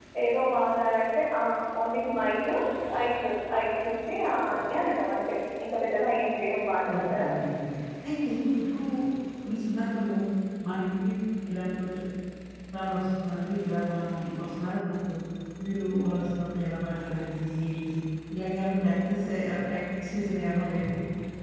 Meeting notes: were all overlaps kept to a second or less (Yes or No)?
Yes